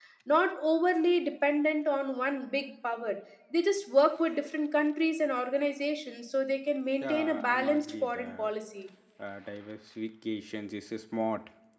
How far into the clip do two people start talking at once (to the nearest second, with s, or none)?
7 s